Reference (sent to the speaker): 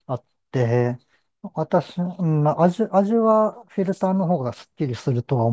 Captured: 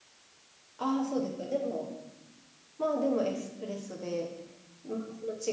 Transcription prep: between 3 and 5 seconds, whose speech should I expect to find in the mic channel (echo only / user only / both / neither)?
user only